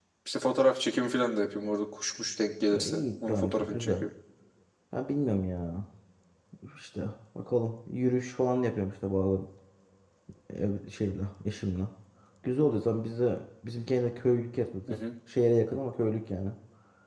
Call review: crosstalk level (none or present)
present